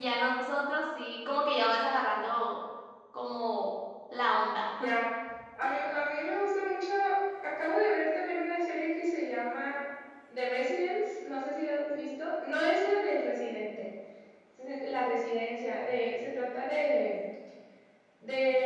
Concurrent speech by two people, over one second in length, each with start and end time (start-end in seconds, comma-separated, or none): none